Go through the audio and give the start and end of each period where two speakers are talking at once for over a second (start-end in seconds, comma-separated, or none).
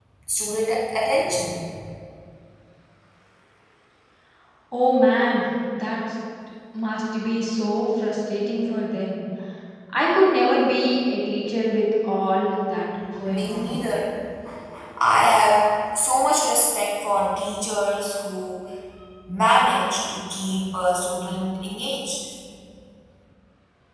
none